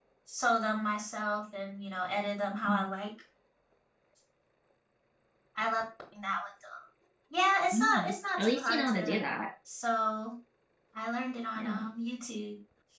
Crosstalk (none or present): present